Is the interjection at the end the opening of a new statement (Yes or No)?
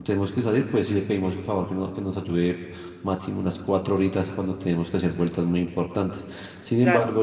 No